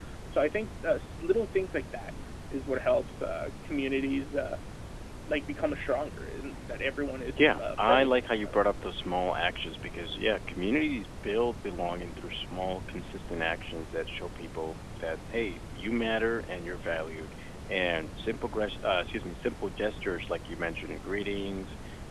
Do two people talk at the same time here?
Yes, from 7.4 s

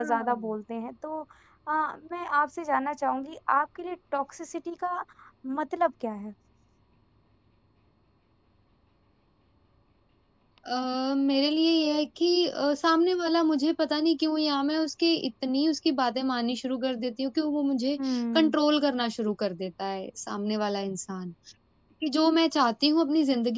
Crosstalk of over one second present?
No

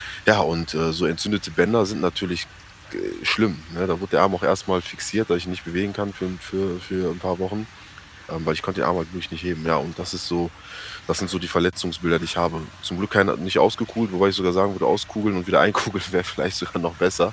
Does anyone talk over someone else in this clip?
No

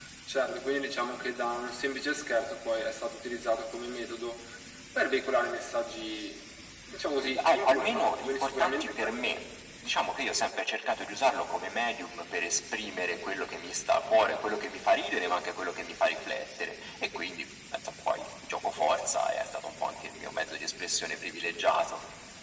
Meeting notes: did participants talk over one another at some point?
Yes, from 7.2 s

